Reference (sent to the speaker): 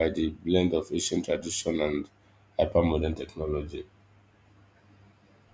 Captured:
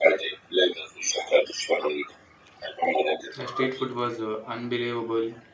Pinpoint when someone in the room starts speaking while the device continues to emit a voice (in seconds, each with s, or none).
3.4 s